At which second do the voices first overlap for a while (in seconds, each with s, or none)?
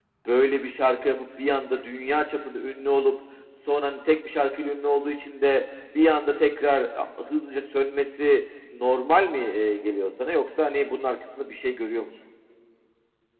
none